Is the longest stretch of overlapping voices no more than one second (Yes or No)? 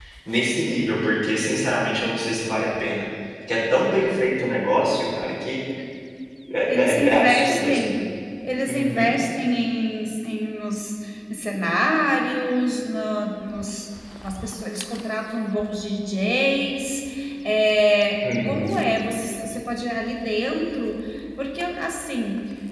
No